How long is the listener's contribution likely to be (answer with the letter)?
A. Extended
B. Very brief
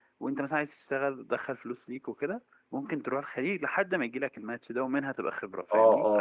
A